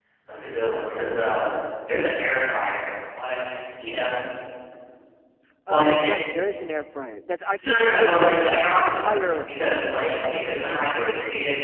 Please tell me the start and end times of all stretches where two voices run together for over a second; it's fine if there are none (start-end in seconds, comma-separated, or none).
7.6-9.5